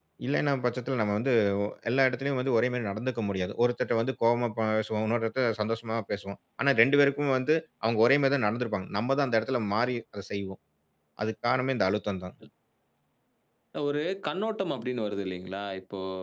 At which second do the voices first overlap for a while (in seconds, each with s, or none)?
none